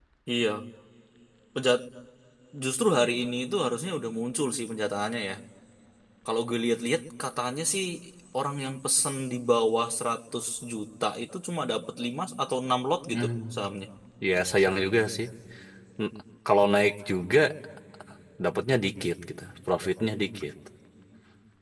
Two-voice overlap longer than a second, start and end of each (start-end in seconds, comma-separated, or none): none